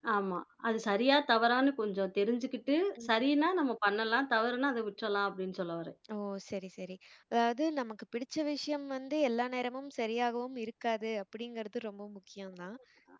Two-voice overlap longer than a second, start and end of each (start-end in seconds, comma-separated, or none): none